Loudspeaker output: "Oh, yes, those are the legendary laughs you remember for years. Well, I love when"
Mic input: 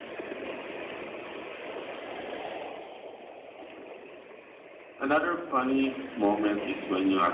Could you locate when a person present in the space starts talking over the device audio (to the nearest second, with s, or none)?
5 s